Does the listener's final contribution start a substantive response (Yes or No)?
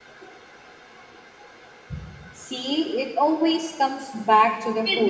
Yes